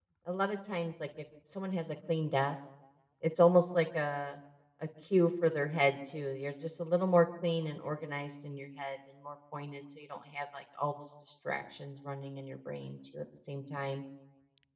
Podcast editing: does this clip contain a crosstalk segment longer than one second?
No

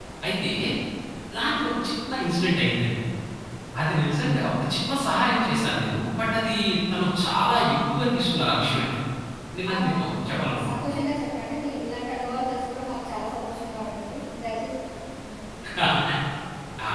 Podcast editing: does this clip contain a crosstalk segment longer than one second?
No

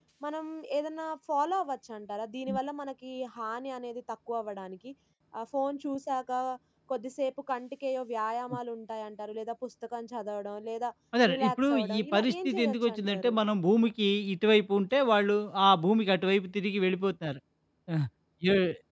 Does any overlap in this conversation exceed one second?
Yes, from 11.3 s

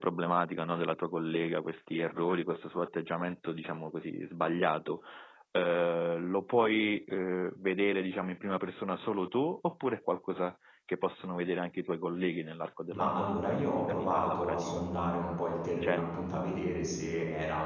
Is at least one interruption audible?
Yes, from 12.9 s

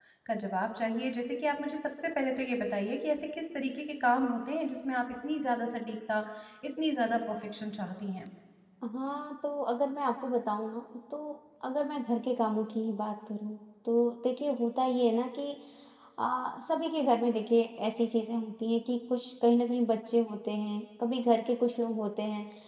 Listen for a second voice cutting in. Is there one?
No

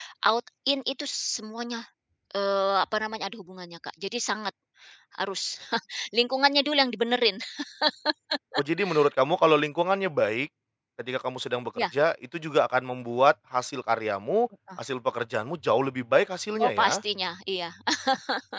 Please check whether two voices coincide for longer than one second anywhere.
No

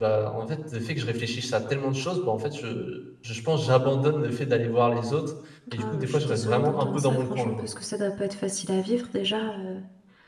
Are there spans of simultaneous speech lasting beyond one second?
Yes, from 5.8 s

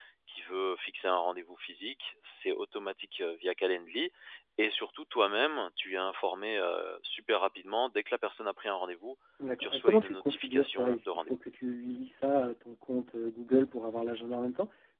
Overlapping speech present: Yes, from 9.6 s

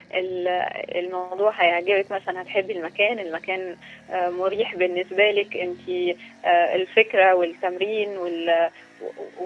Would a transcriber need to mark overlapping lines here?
No

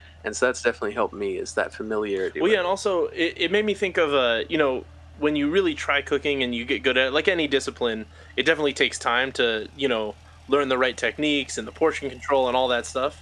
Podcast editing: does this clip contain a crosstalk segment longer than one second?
No

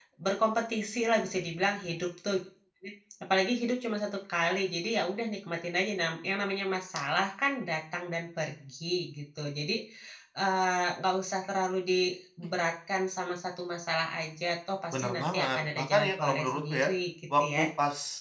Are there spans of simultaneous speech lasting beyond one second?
Yes, from 14.9 s

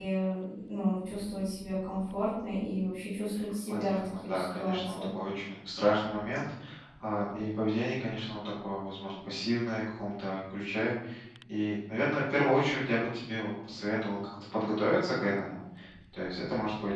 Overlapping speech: Yes, from 3.7 s

